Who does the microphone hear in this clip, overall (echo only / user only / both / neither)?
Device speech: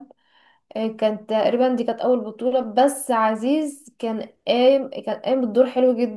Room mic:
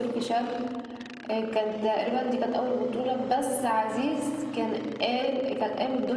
echo only